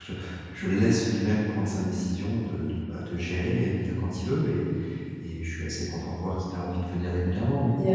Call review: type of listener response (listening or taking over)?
taking over